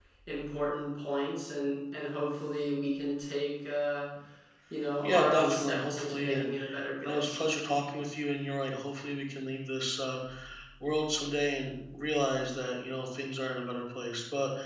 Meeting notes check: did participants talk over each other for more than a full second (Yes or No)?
Yes